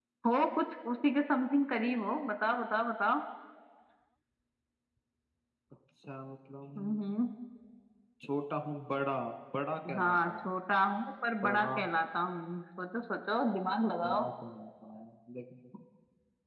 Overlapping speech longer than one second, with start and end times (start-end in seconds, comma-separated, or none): none